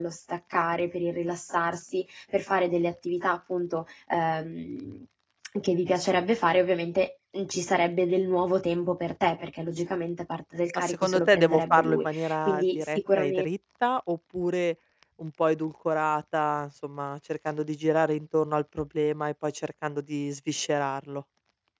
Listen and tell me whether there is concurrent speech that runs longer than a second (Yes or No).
Yes